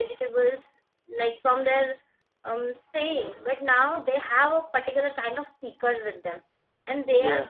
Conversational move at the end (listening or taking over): listening